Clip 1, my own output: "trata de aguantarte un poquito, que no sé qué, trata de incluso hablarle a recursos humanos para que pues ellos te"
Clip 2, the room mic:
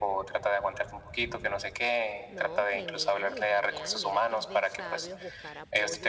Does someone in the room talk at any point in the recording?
Yes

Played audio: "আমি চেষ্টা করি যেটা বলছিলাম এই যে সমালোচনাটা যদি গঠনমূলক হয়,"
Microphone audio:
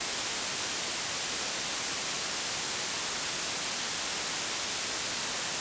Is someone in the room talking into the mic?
No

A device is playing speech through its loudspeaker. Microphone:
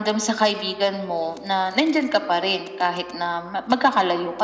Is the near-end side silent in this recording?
Yes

